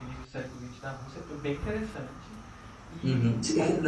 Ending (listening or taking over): taking over